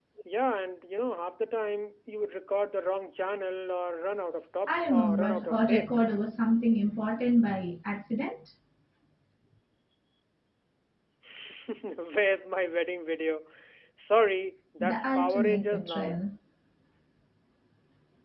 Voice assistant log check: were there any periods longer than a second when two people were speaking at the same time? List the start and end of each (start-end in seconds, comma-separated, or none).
4.7-5.9, 14.8-16.2